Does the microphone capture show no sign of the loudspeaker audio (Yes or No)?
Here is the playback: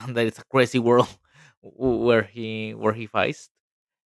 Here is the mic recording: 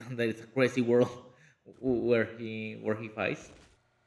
No